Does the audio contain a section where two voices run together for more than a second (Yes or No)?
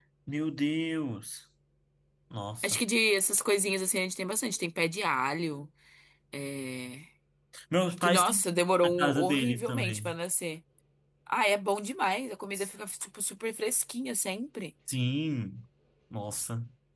Yes